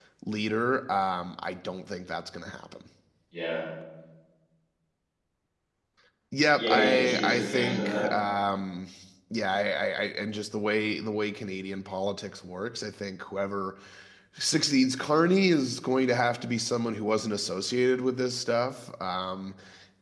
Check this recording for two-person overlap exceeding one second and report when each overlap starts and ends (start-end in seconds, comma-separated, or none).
6.5-8.1